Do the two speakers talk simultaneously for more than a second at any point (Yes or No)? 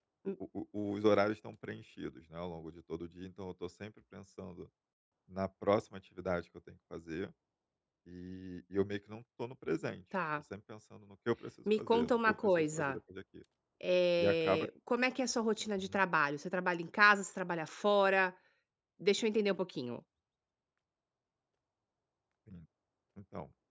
Yes